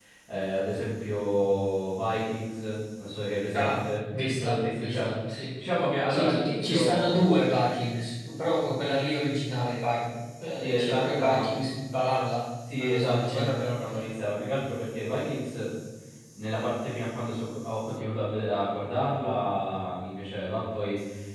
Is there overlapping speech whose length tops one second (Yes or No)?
Yes